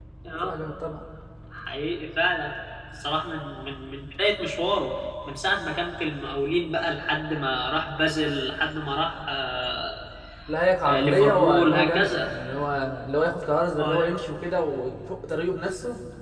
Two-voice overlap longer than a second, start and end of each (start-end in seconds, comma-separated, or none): 10.8-12.3